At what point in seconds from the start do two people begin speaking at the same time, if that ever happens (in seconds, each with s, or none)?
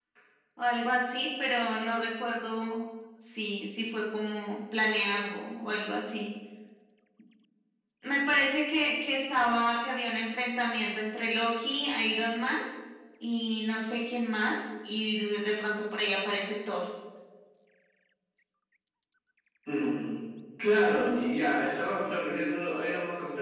none